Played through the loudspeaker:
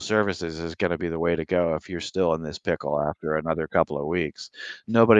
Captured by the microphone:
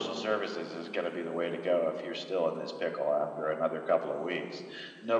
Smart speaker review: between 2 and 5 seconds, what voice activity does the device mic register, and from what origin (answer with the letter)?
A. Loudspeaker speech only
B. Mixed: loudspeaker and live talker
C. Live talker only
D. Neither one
A